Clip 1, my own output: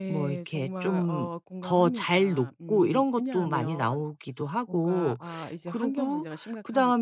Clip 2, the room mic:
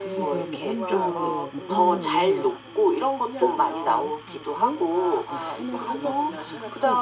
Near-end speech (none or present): present